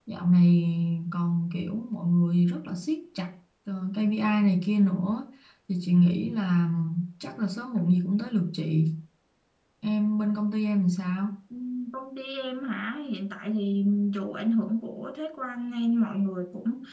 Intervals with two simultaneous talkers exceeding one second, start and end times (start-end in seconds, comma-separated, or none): none